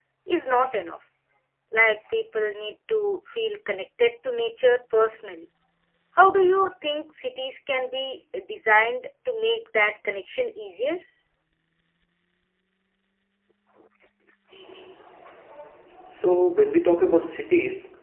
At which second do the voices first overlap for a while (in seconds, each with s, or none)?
none